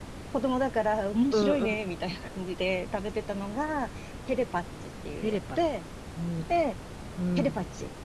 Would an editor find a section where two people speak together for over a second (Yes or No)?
No